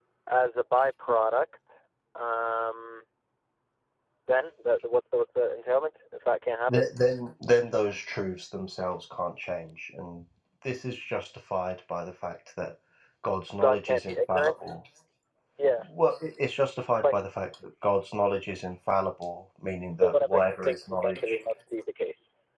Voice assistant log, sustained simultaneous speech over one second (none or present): present